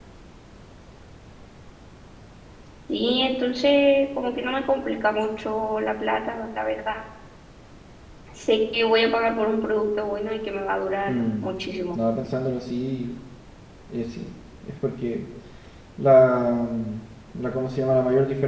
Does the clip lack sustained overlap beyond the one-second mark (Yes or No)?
Yes